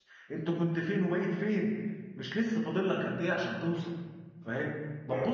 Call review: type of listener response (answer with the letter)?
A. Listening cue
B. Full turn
A